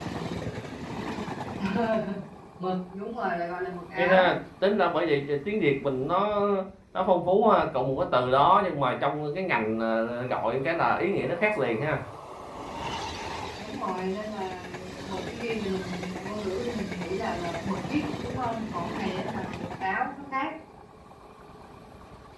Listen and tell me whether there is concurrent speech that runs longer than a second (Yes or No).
No